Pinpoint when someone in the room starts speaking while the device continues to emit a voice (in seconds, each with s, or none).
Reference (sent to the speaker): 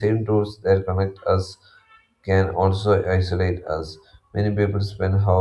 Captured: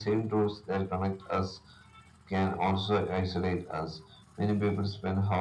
none